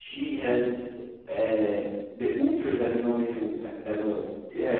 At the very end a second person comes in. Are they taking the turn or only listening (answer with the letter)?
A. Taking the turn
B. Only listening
A